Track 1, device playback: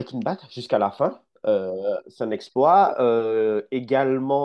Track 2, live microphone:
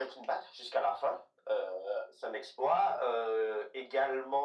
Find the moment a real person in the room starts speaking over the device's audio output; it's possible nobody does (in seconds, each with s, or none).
none